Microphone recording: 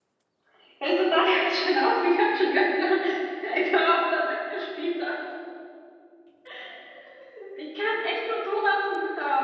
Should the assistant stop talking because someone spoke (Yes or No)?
Yes